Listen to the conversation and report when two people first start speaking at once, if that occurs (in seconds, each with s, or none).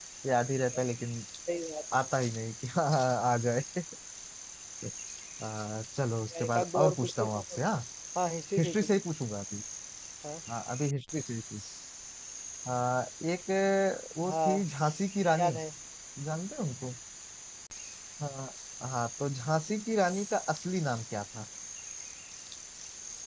6.4 s